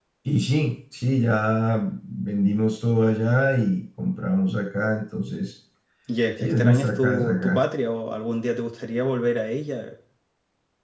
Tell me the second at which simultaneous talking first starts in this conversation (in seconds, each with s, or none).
6.4 s